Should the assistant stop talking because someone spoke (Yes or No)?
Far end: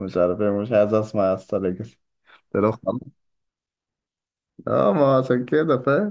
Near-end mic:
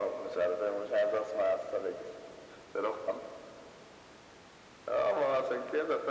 No